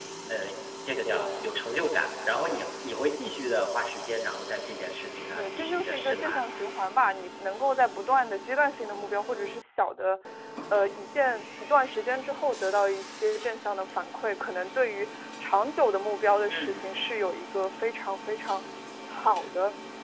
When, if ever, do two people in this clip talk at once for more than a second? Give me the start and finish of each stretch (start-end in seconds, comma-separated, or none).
5.2-6.4